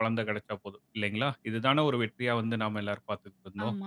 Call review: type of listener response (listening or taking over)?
taking over